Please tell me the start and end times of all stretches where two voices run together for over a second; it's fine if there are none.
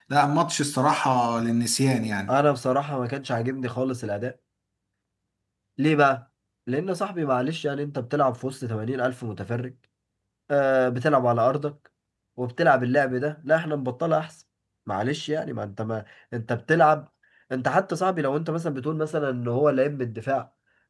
none

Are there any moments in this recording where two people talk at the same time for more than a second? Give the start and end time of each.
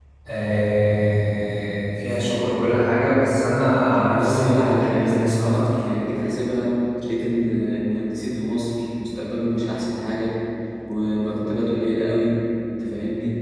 4.1-5.8

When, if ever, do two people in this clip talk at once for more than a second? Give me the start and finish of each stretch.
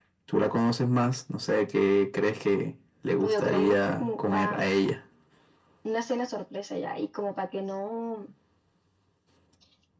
3.2-4.7

